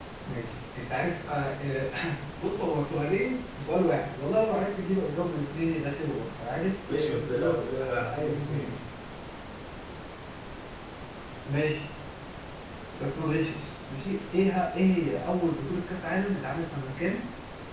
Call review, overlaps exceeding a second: present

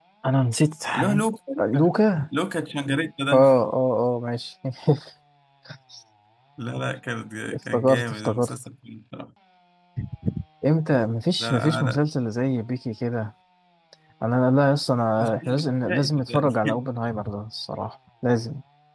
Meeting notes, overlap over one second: present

